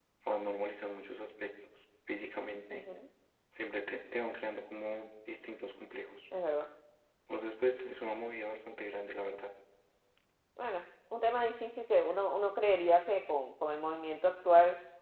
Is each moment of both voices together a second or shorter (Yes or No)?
Yes